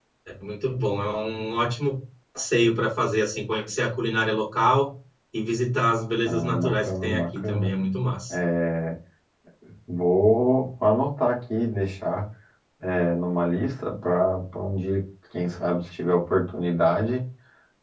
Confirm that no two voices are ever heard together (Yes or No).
No